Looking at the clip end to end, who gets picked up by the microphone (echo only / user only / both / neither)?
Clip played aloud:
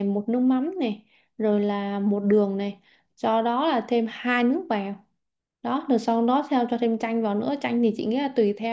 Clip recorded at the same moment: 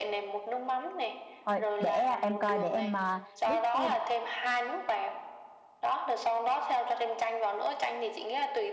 both